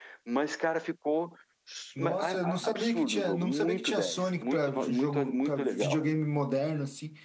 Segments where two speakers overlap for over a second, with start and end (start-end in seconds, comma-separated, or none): 2.0-6.0